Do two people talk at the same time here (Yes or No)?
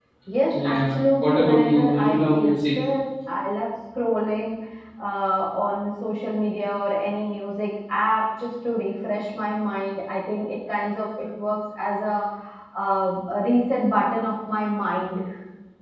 Yes